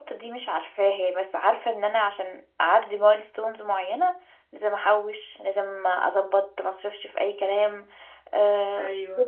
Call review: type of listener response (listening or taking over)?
listening